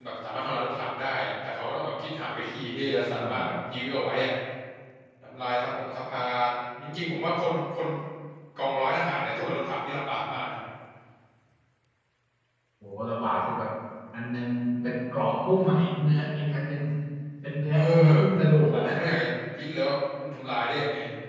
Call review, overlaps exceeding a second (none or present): none